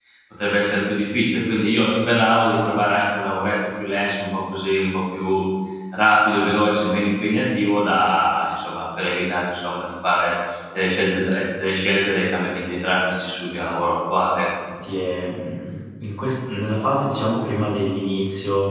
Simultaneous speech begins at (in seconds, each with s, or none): none